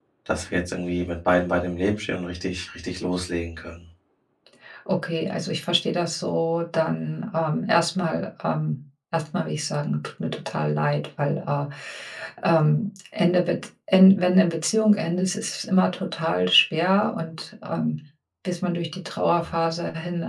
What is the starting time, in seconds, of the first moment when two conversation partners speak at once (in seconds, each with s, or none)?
none